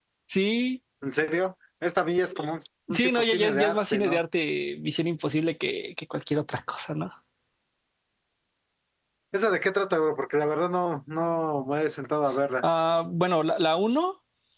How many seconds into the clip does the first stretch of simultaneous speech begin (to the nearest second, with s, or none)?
3 s